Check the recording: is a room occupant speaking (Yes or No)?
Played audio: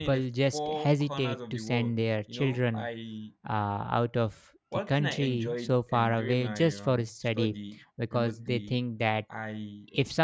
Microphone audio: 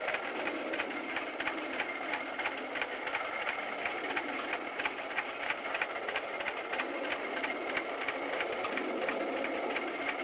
No